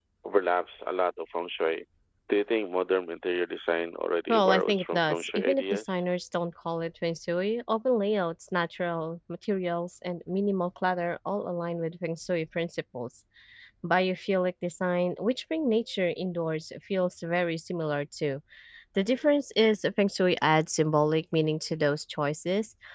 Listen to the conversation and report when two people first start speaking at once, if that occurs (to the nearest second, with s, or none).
4 s